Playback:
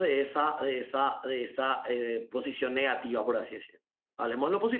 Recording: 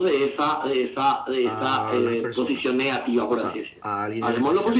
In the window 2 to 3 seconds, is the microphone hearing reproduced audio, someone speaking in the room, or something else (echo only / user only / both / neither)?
both